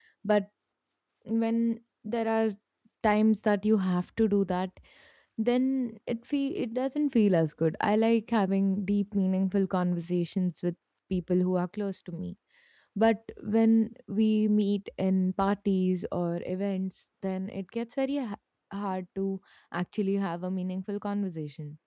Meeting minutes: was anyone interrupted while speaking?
No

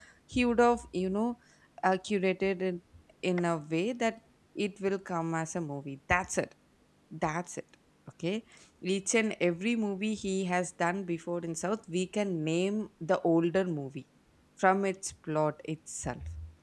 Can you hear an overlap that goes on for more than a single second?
No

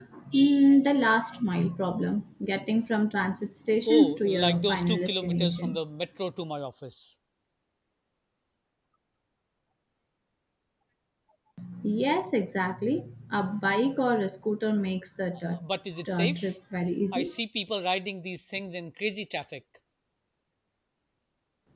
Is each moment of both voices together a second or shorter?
No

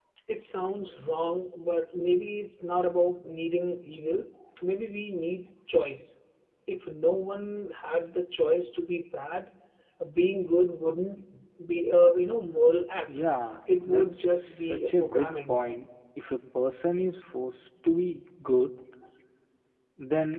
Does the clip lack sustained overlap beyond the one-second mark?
No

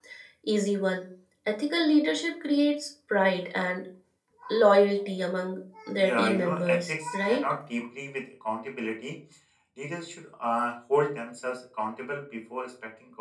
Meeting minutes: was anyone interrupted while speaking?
Yes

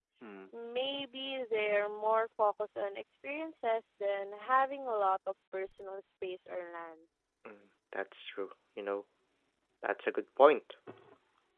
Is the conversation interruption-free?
Yes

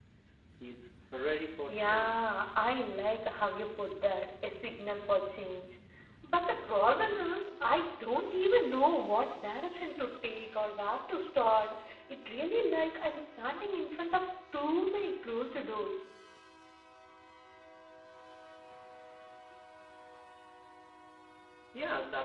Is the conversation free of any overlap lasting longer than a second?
Yes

